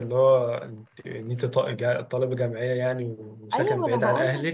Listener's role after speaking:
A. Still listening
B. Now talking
B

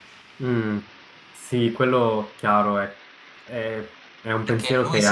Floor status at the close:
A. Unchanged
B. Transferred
B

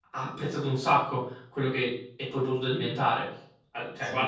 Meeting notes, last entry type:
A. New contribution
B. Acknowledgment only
B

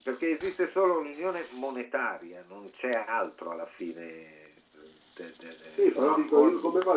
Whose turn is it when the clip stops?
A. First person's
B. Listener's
B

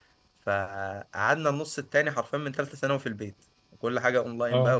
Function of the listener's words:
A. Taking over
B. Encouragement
B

